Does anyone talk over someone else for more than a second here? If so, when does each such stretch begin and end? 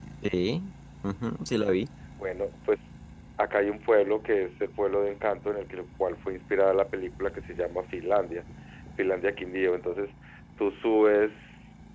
none

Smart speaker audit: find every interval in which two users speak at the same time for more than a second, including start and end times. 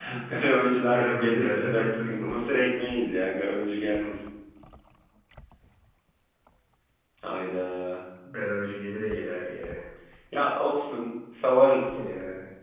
0.8-2.6

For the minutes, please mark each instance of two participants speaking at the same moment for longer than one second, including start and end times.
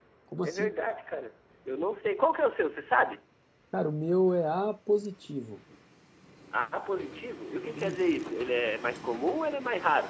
none

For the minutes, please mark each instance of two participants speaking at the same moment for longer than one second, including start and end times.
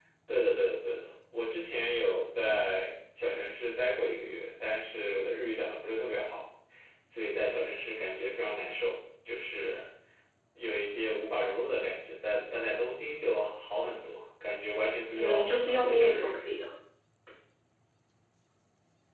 15.2-16.4

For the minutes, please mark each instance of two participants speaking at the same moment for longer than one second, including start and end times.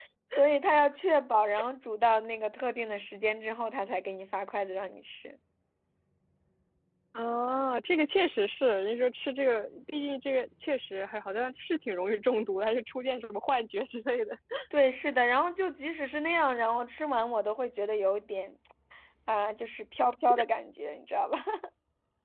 none

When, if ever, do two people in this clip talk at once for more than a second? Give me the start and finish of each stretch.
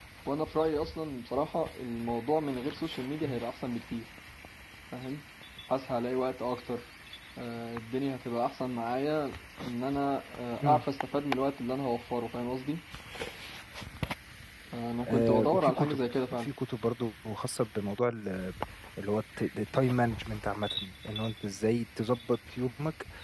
15.1-16.5

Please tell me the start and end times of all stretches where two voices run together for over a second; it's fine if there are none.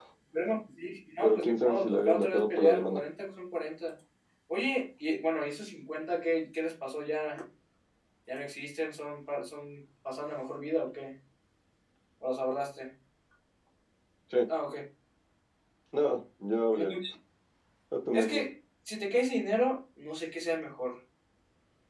1.2-3.0

